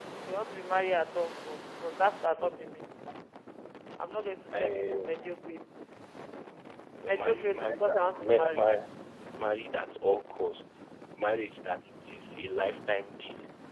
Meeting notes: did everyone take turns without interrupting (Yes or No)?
No